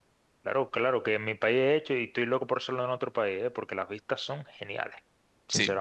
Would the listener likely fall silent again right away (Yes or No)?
No